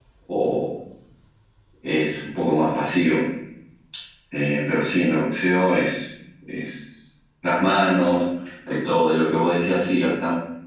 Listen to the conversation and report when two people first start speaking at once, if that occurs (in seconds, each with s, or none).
none